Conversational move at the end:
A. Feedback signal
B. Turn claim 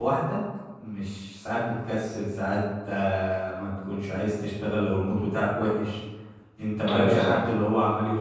A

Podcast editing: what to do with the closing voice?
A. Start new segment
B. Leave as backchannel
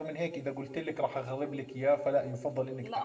A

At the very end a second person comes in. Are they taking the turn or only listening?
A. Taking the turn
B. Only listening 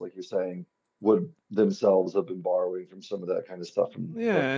A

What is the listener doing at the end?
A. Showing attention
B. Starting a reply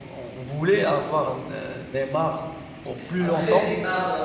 B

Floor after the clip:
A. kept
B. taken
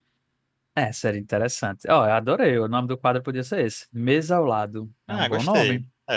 B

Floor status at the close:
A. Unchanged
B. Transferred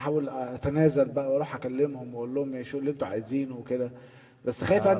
B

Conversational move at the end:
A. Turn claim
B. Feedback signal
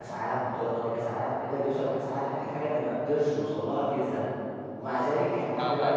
A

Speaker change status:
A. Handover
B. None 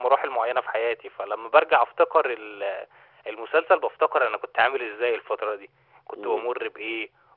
B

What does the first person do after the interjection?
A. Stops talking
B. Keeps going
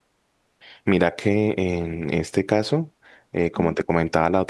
B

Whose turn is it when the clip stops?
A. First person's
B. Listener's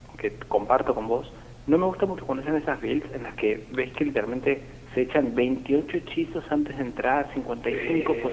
A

